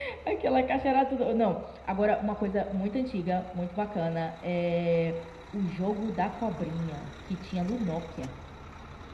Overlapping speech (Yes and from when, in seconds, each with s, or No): No